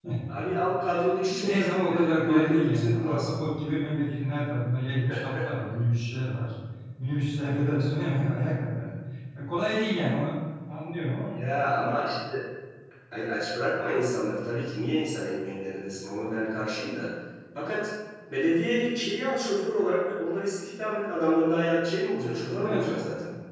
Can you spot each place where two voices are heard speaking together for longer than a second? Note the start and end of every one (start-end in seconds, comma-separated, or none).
1.3-3.4